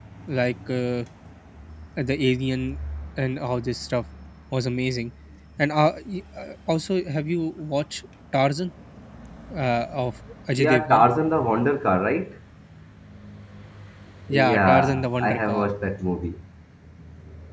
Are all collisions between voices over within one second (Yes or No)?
No